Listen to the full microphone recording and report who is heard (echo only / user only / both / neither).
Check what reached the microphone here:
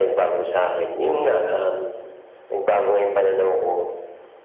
echo only